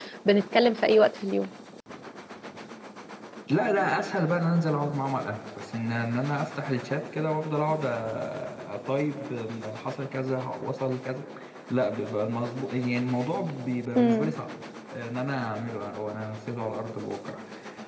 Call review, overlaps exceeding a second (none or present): none